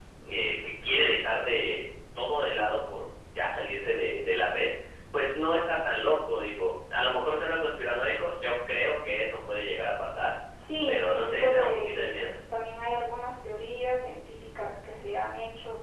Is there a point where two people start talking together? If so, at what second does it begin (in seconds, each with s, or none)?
10.9 s